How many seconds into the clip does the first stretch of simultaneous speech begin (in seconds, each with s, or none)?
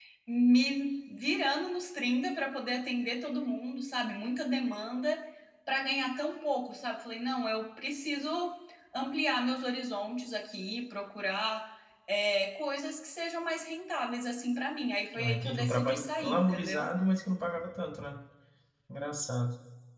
15.1 s